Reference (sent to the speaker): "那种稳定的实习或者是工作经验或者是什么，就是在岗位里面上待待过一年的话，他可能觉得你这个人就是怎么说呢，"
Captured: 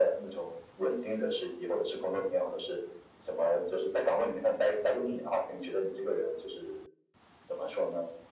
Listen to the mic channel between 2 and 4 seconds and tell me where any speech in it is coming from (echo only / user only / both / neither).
echo only